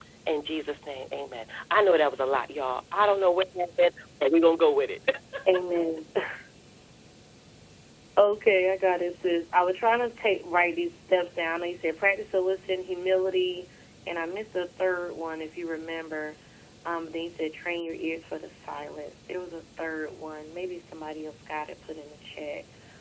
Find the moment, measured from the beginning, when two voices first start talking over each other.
none

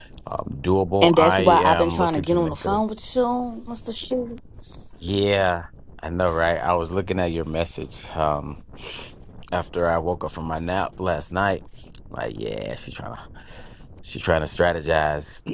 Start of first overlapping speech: 1.0 s

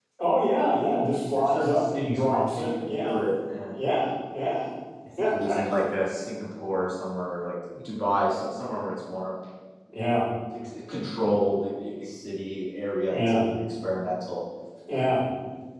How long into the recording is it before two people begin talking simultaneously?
1.4 s

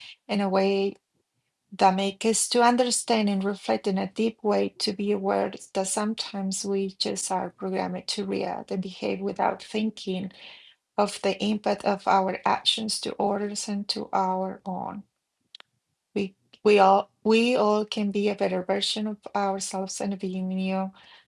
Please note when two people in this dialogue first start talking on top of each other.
none

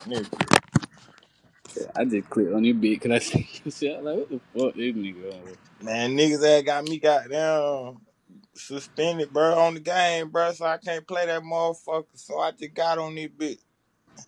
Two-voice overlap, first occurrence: none

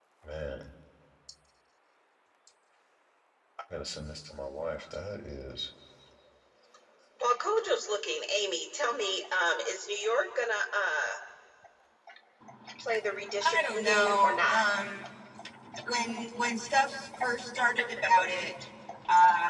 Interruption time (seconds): 13.4 s

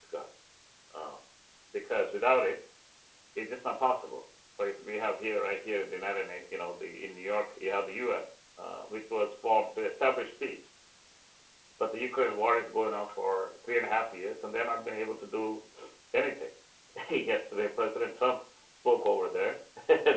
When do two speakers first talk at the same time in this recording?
none

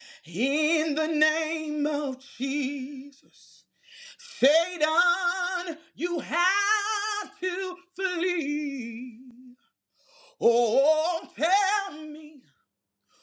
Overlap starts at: none

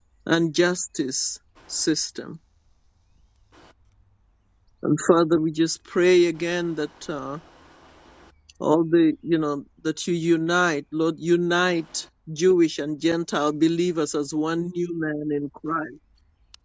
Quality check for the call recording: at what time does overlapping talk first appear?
none

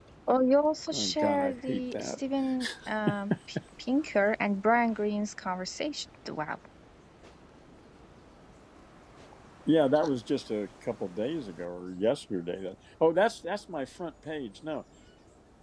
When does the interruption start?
0.9 s

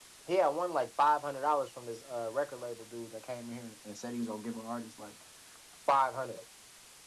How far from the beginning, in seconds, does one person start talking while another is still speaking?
none

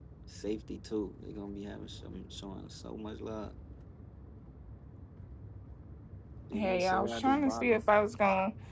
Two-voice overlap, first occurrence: 6.5 s

